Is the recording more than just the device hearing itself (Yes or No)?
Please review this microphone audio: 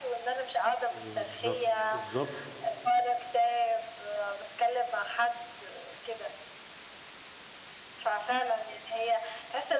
Yes